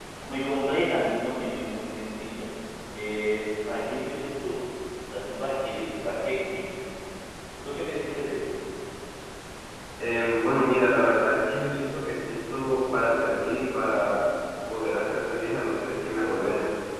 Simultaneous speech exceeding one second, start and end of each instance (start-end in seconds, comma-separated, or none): none